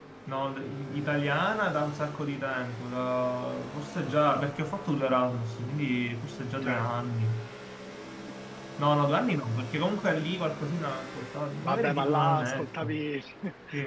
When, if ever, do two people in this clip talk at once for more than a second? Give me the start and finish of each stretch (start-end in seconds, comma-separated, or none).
11.6-13.0